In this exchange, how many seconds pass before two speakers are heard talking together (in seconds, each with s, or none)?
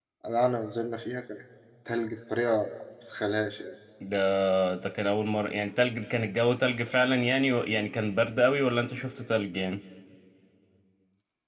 none